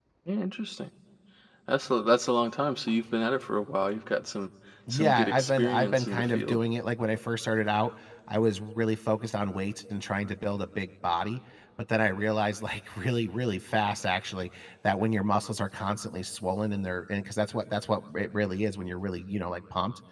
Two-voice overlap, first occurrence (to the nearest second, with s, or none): 5 s